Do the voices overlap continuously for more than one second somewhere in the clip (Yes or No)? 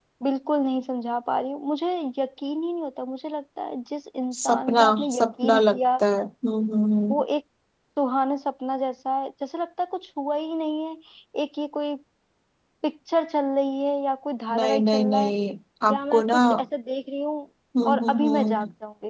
Yes